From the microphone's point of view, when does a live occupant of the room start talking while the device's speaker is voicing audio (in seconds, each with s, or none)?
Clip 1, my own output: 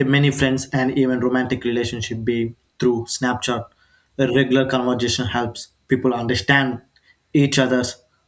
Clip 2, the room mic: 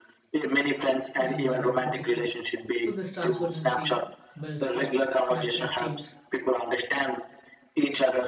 1.2 s